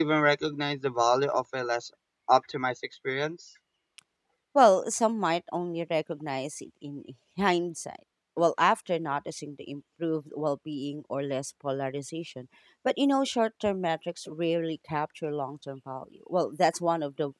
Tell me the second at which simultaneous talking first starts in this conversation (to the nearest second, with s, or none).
none